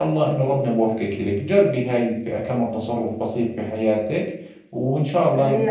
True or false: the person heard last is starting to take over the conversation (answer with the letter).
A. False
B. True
B